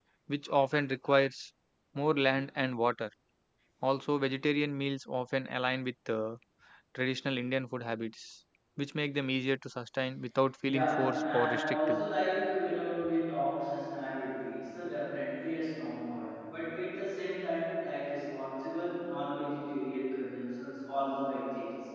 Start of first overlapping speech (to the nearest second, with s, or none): 11 s